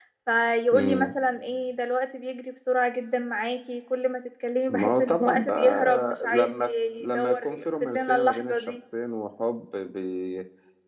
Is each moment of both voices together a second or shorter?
No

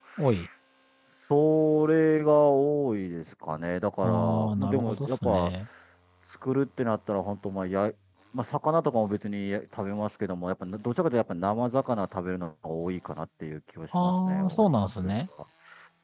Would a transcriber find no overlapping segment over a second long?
No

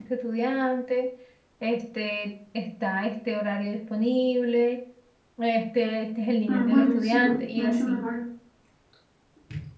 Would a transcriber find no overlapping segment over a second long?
No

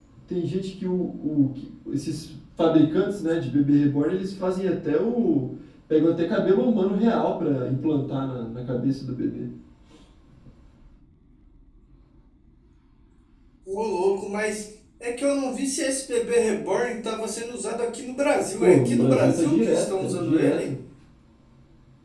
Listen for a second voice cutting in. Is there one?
Yes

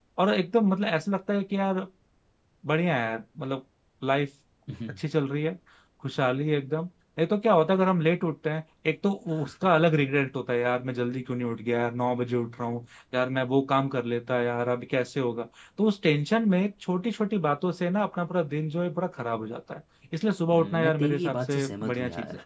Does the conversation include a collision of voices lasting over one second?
Yes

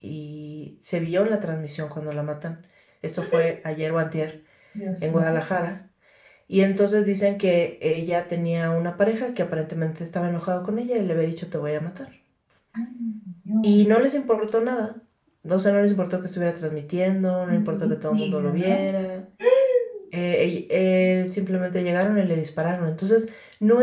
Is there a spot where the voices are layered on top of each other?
Yes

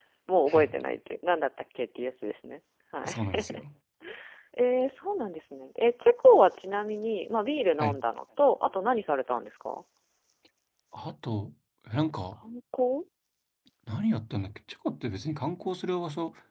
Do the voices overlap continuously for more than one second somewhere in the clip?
No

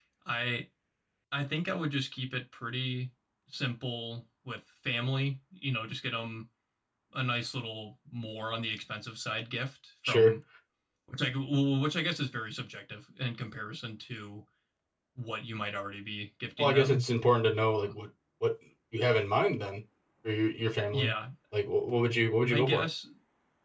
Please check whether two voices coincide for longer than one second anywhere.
No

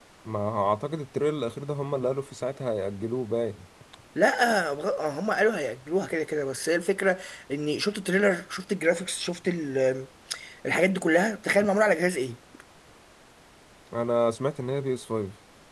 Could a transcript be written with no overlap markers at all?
Yes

